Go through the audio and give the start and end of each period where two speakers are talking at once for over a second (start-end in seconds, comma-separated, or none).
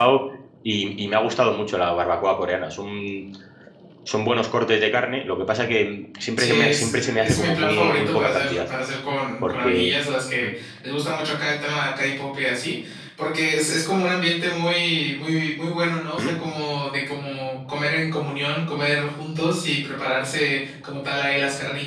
6.4-8.6